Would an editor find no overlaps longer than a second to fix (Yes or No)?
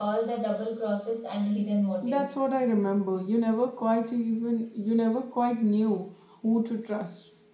Yes